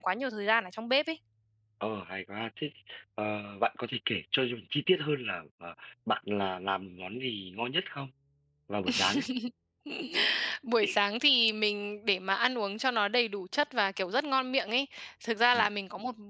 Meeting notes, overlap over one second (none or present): none